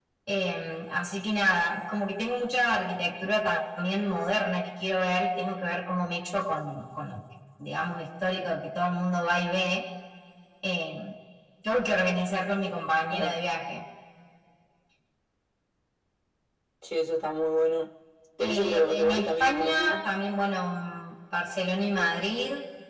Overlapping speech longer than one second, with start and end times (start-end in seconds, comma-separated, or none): 18.4-20.0